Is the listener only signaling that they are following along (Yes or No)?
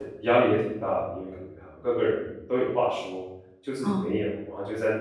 Yes